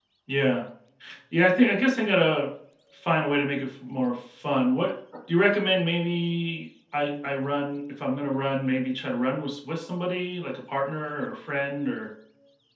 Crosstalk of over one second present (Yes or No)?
No